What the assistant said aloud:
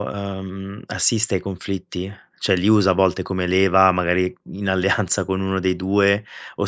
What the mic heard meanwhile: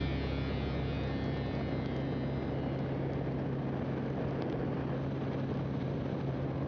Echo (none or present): none